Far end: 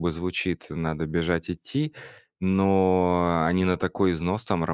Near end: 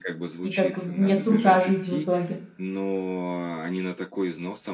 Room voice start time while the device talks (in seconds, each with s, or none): 0.4 s